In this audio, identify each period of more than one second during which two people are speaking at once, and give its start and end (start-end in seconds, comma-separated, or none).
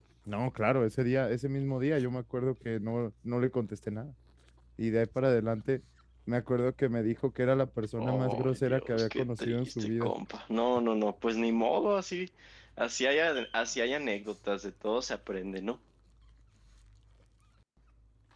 8.0-10.1